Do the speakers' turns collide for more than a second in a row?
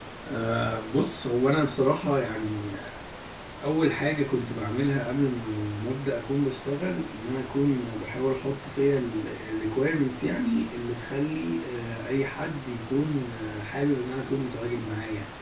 No

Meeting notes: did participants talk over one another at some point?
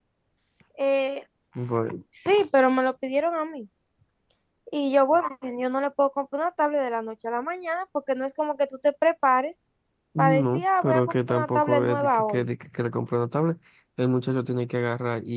Yes, from 10.2 s

